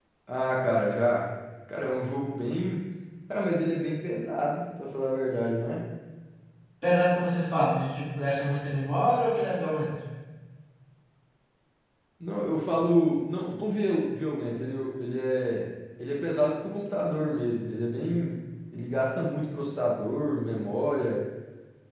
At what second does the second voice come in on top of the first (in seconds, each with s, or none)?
none